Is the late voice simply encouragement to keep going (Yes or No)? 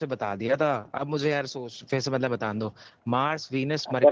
No